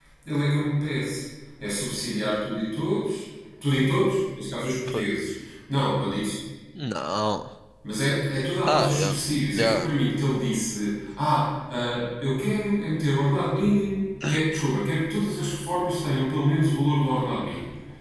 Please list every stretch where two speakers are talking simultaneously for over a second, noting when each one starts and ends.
none

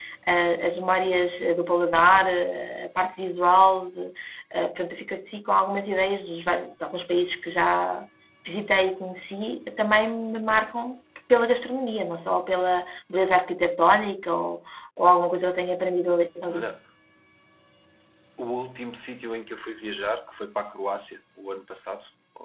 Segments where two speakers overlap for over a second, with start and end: none

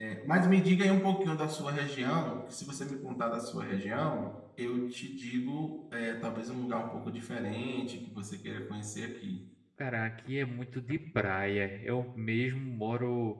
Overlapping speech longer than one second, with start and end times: none

